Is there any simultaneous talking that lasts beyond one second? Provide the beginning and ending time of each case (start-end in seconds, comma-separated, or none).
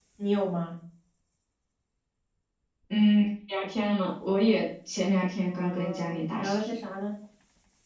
5.4-6.7